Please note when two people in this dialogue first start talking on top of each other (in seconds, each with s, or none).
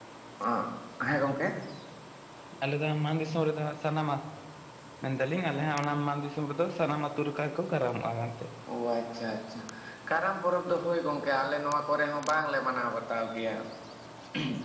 none